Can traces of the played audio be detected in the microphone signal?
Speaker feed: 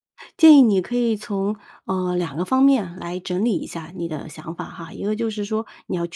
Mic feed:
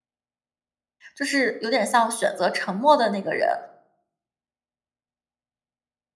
No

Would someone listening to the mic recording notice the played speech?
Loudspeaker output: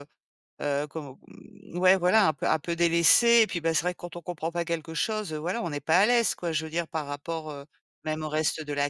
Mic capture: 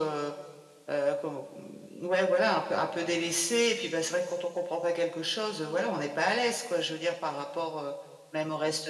Yes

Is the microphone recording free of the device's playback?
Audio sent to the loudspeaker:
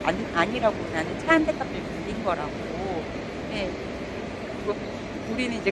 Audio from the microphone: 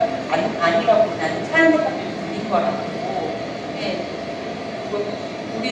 No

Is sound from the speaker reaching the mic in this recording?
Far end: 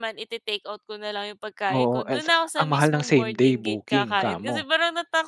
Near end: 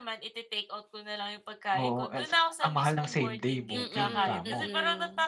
Yes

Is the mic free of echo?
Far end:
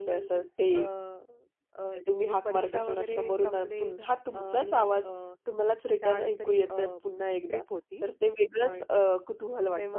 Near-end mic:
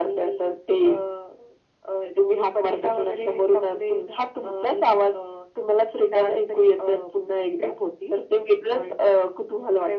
No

